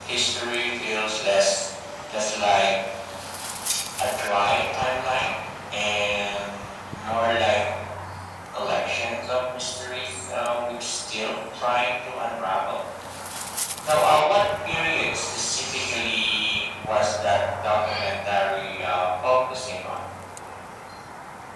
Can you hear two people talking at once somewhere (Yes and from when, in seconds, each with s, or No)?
No